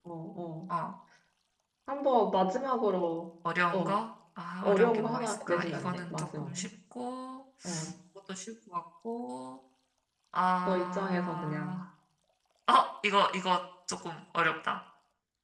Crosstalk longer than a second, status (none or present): present